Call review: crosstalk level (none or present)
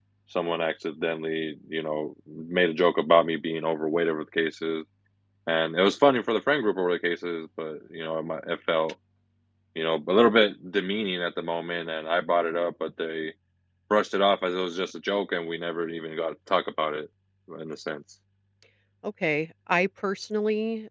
none